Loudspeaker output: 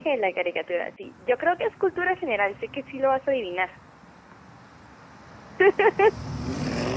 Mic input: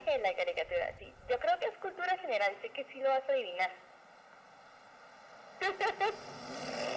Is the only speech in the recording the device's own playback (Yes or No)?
Yes